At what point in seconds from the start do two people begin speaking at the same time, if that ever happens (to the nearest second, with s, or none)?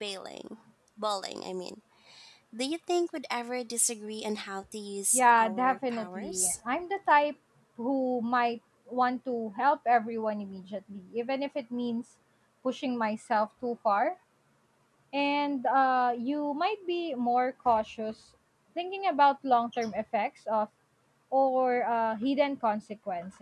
5 s